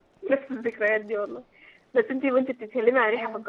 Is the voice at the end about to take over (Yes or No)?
No